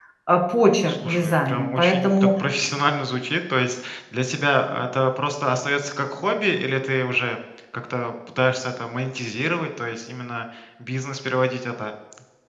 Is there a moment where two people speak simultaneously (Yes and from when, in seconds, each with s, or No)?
Yes, from 0.9 s